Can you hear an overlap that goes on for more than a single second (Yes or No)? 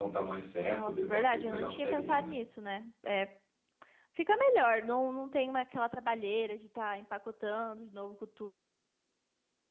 Yes